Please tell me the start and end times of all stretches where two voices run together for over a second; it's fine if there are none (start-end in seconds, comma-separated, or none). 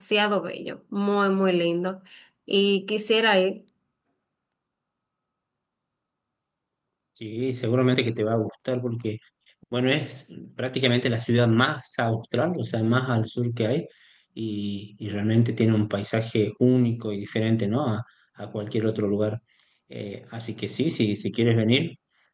none